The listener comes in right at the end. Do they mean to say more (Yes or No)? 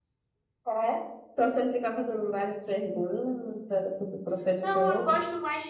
Yes